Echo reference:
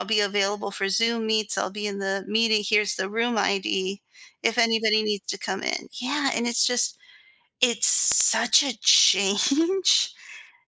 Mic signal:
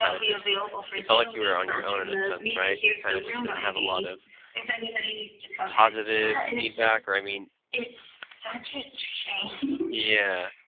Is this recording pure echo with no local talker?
No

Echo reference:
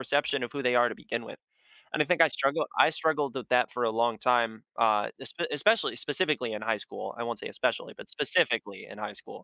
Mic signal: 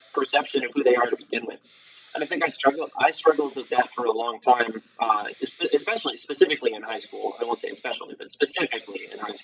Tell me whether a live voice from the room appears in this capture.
No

